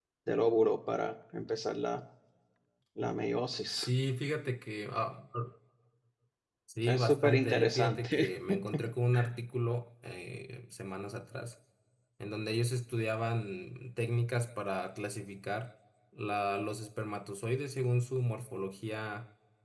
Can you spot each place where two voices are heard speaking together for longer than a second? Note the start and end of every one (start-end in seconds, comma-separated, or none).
6.8-8.3